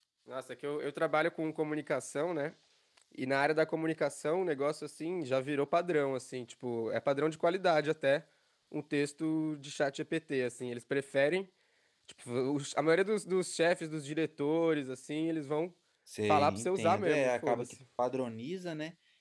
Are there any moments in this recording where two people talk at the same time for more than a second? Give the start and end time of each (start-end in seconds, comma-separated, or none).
16.3-17.7